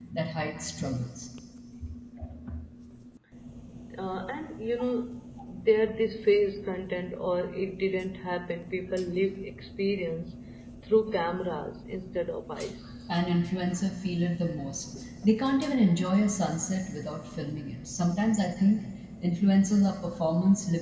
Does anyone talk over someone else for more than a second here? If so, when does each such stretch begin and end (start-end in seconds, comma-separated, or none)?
none